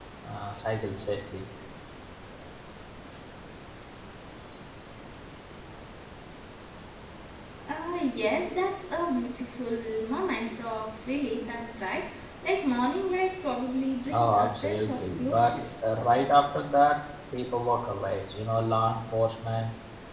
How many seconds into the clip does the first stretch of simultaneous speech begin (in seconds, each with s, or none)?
14.0 s